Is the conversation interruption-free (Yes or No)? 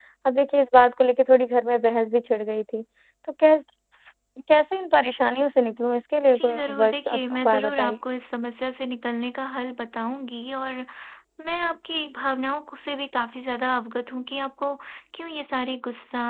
No